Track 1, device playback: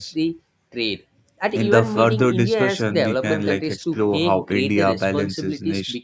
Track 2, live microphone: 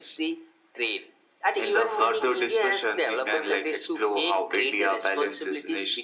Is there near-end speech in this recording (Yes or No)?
No